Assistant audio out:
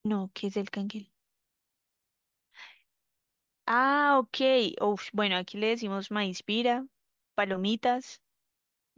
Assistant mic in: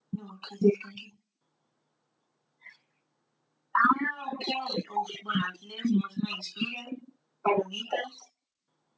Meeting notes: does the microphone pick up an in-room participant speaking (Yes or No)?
No